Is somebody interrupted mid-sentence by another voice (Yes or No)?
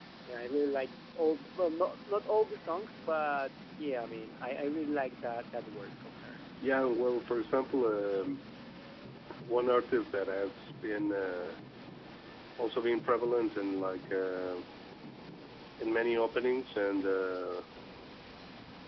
No